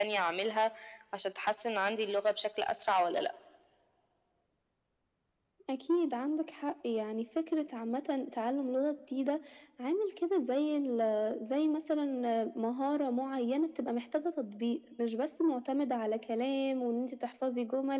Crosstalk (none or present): none